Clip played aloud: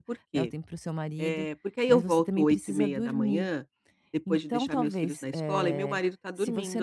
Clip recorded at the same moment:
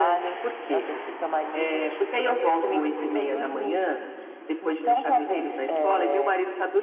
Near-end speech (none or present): none